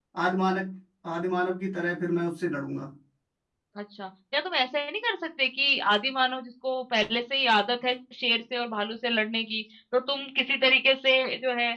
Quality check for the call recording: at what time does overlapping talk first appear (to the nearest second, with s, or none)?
none